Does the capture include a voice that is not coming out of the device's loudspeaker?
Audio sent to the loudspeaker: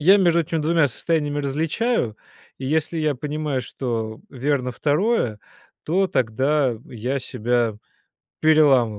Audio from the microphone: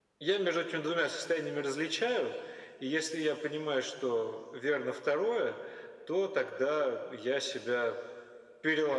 No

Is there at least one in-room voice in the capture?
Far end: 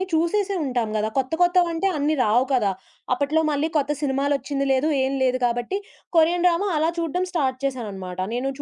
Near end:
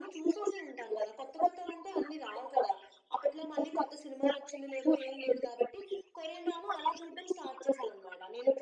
No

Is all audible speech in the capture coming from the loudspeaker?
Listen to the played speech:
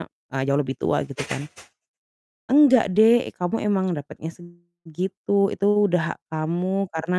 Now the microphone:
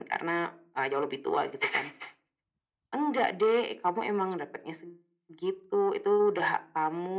Yes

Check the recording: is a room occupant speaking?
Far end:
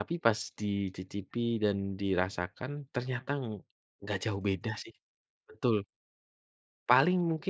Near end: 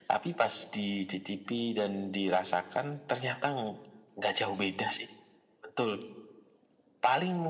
No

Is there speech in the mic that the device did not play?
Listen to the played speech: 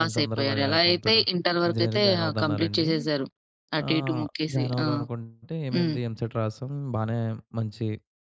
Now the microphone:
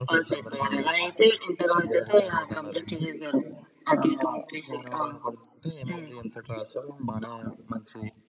No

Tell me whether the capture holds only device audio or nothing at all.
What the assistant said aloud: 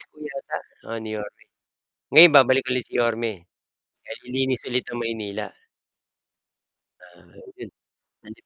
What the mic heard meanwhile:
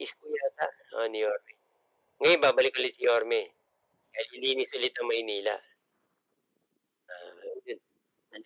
Yes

